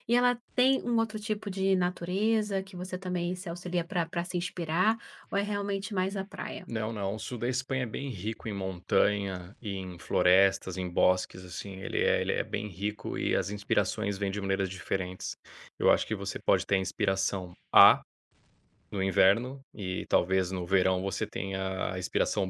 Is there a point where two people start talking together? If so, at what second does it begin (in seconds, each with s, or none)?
none